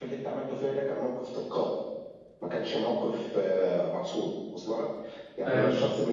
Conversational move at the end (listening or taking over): listening